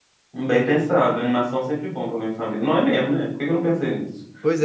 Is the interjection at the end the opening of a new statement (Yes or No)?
Yes